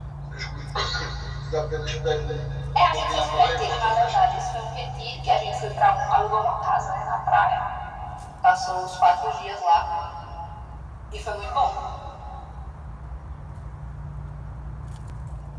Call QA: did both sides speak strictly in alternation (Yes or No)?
No